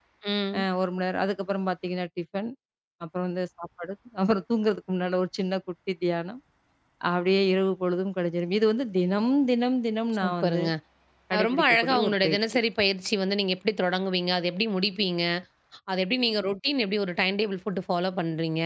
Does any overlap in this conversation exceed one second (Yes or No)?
Yes